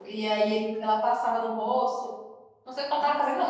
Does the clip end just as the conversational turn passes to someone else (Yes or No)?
No